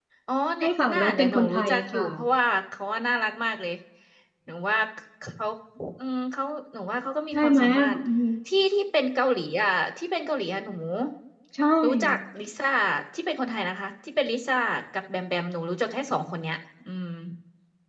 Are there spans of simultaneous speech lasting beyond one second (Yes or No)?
Yes